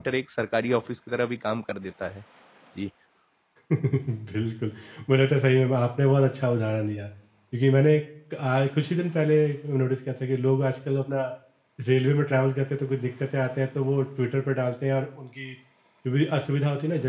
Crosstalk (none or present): none